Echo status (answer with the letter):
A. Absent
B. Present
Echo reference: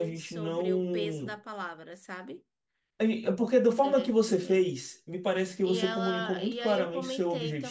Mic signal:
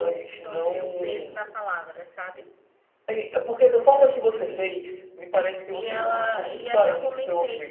B